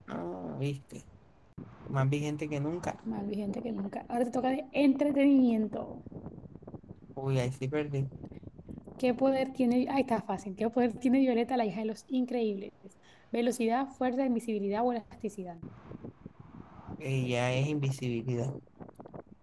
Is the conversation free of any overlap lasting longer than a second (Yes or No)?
Yes